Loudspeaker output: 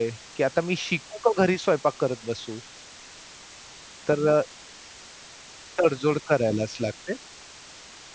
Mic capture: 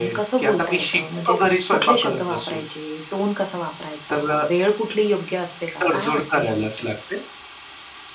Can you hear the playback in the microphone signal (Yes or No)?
Yes